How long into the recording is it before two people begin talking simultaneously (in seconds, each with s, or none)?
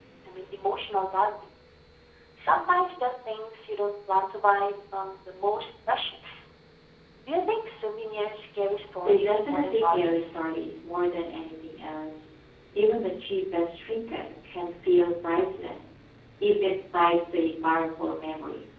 9.0 s